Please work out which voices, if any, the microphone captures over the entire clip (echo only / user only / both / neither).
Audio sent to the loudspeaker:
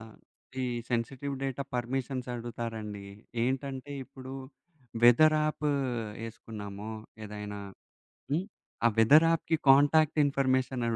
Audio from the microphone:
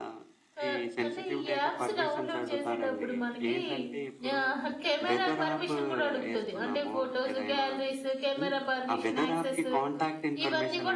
both